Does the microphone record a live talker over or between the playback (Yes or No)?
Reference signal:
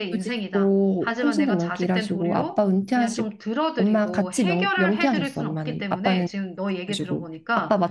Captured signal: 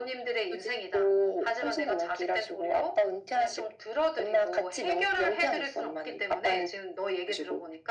No